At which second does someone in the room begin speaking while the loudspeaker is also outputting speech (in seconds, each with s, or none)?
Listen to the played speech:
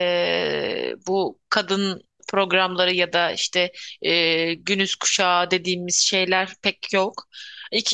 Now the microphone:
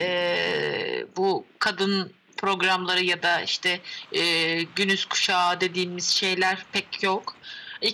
none